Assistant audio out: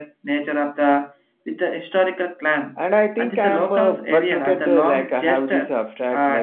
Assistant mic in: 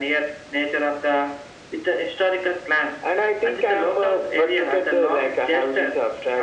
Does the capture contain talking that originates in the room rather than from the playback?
No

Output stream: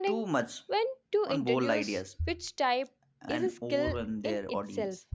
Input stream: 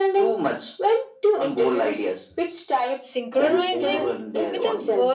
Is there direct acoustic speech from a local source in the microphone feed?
Yes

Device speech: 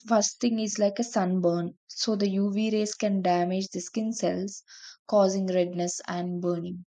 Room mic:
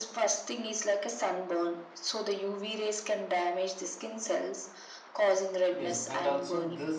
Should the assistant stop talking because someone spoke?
Yes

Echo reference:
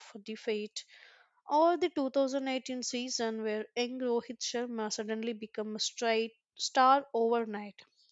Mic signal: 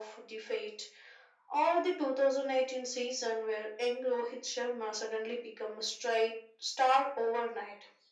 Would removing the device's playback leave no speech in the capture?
Yes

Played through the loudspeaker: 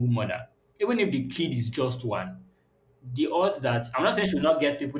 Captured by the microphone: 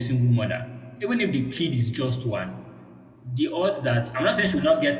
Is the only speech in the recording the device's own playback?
Yes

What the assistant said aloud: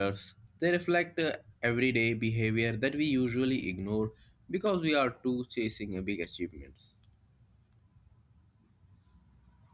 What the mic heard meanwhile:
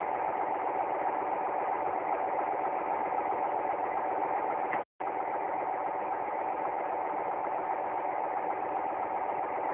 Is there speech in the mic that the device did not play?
No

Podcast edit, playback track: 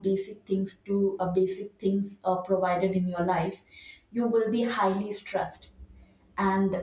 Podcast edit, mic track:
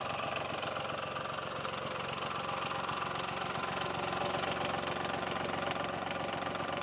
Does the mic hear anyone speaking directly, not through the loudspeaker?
No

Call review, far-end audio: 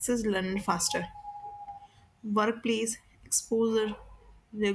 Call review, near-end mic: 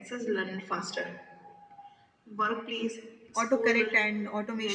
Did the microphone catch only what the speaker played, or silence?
No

